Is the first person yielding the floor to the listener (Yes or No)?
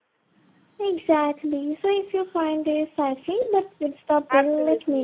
Yes